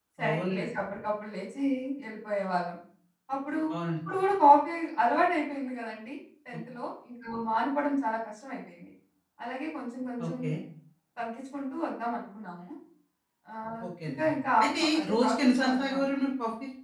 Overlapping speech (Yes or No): Yes